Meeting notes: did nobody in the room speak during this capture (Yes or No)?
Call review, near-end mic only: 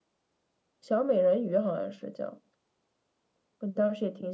Yes